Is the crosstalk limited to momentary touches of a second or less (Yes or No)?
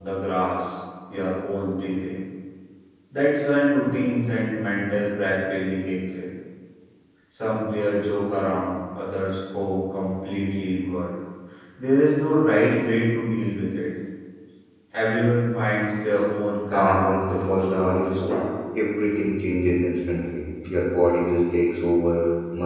No